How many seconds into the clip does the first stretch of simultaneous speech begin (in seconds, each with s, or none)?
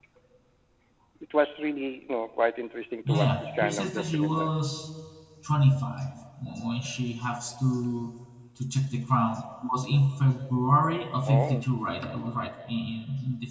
3.0 s